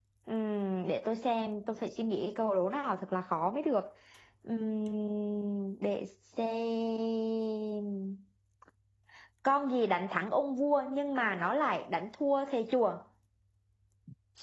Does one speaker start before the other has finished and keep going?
No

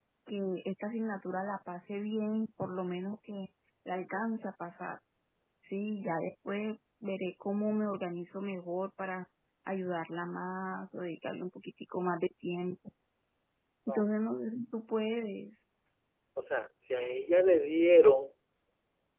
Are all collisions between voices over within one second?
Yes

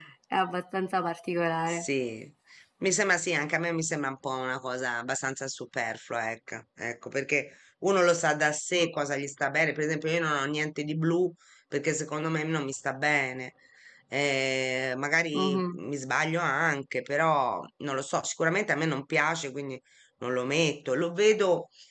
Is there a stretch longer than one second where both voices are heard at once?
No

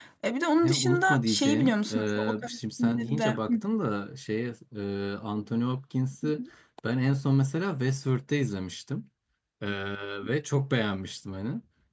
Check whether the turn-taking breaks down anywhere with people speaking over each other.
Yes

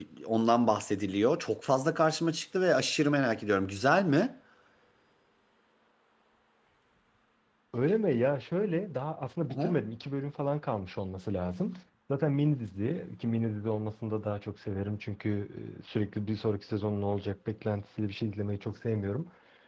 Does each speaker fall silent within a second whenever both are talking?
Yes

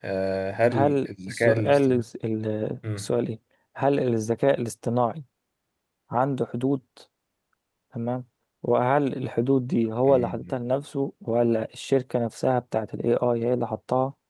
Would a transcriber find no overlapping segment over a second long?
No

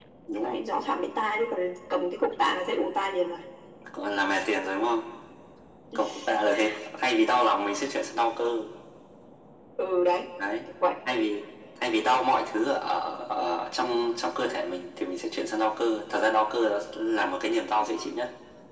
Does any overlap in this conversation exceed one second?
No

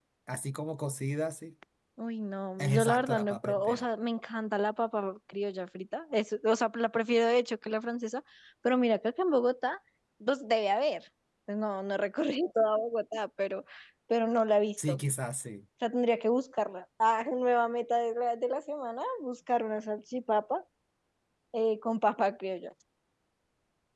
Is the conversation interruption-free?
No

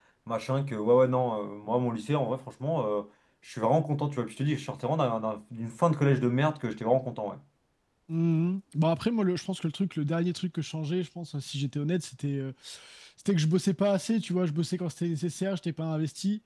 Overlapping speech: No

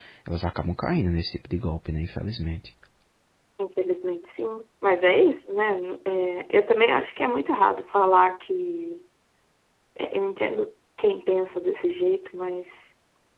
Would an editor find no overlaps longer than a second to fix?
Yes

